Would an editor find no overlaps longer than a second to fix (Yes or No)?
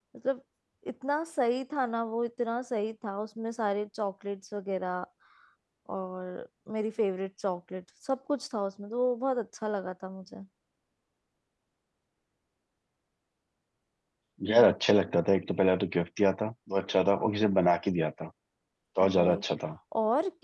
Yes